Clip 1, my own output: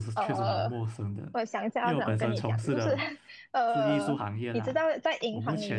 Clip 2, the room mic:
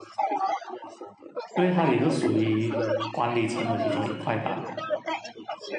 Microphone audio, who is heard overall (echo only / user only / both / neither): both